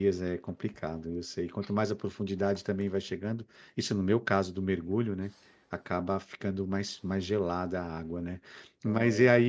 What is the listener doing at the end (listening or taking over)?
listening